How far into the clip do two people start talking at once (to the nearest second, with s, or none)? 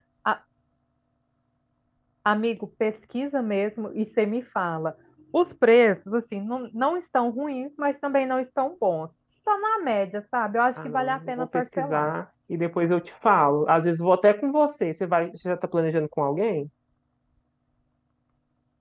11 s